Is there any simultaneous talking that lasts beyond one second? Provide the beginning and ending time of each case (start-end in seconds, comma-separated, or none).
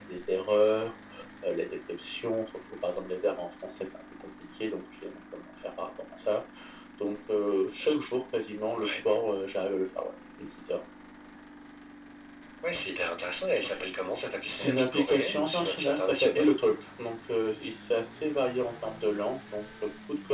14.5-16.5